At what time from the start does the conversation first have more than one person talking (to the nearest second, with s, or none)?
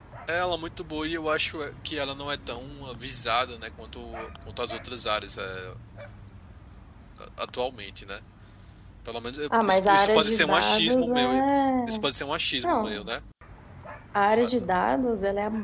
10 s